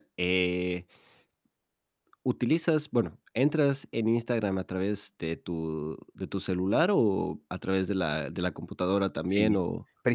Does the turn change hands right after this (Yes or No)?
Yes